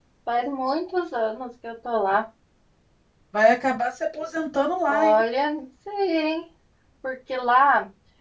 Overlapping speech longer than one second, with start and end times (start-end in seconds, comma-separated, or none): none